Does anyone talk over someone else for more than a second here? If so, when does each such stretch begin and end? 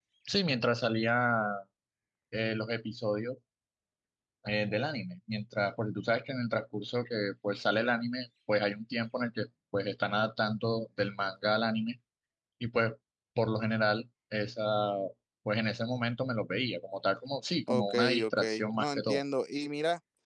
17.7-19.2

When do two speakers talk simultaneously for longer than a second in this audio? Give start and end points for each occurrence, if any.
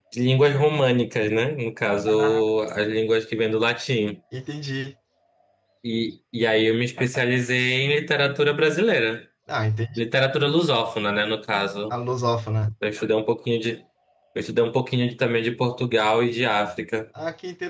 none

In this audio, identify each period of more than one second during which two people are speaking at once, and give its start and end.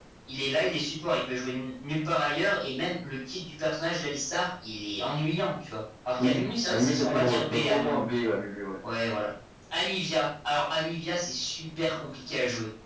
6.2-8.0

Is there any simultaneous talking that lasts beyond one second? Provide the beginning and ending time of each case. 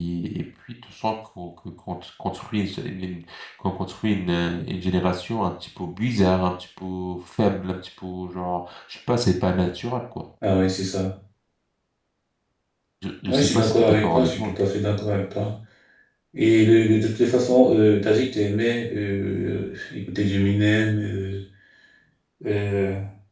13.3-14.6

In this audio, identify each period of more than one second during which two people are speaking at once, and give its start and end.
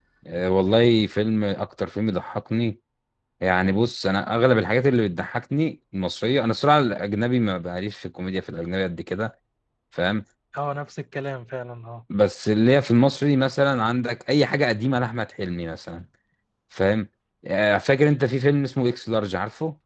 none

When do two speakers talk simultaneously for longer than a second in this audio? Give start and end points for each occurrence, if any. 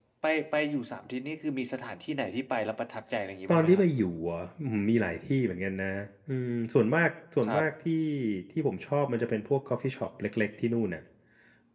none

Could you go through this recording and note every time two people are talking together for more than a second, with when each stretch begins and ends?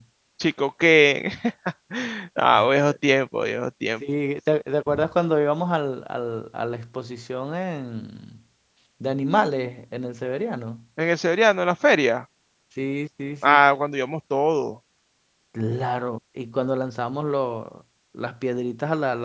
none

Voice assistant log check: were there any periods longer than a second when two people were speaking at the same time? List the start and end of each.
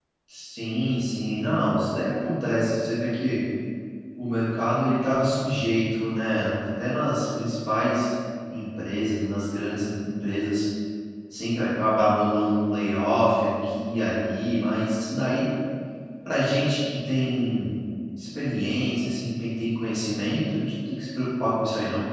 none

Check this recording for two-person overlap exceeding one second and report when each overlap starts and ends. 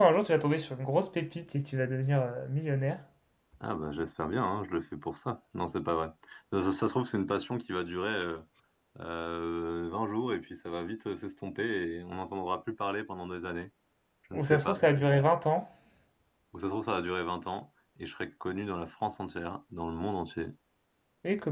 none

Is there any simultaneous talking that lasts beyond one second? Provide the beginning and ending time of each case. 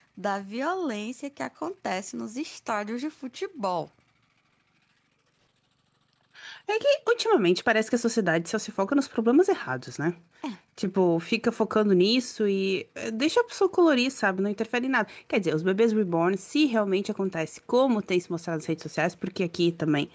none

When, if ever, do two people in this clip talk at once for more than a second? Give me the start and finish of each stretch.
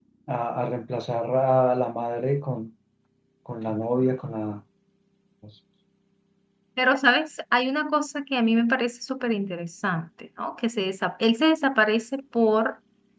none

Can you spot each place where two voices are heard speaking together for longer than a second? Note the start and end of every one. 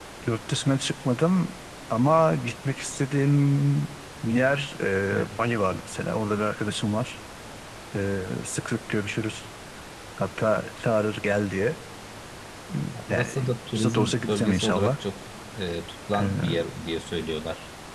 13.1-14.9

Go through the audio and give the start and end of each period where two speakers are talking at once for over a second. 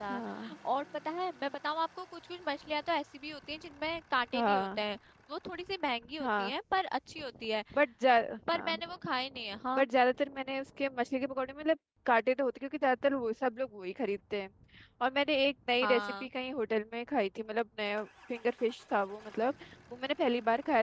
none

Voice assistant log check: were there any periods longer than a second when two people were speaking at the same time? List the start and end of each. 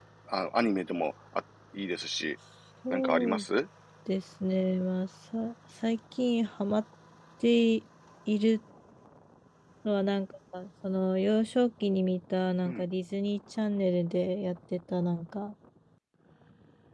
none

